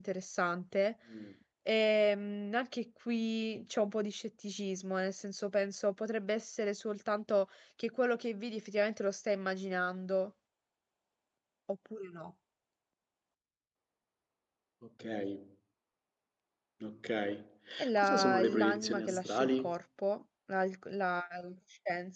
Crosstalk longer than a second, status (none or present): present